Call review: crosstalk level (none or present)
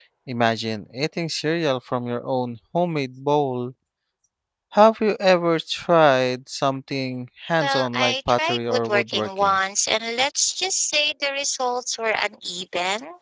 present